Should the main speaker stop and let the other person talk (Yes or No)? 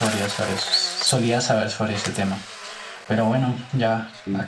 No